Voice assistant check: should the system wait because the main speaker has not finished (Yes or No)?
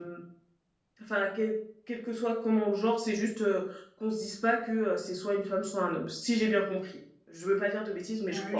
No